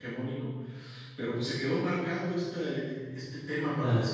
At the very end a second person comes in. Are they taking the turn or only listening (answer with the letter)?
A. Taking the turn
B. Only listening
B